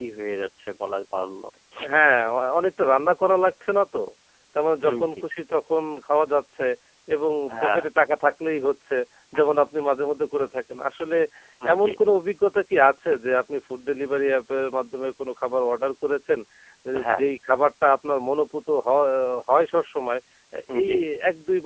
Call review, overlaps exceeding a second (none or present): none